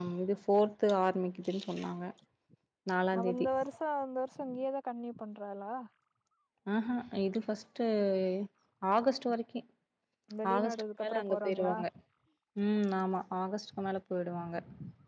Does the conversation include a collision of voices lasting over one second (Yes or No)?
Yes